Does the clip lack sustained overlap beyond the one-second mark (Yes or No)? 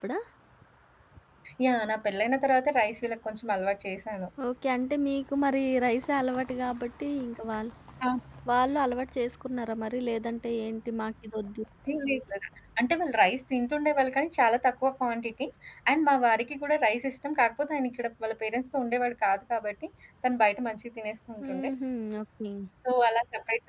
Yes